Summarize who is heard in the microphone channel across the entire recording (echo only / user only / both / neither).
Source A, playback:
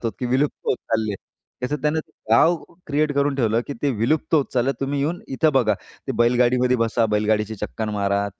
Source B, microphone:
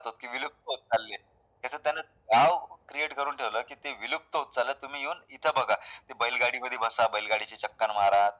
echo only